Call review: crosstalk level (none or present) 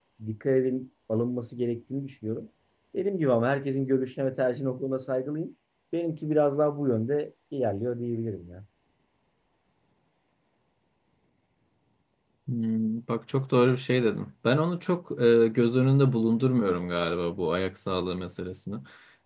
none